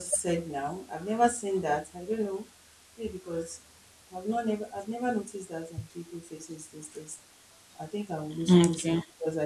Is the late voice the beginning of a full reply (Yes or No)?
No